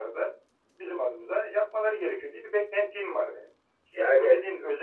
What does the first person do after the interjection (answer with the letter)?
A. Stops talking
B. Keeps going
B